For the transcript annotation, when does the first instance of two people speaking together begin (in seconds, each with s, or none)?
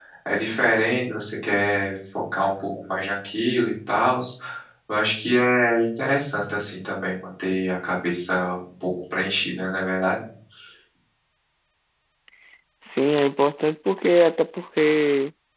none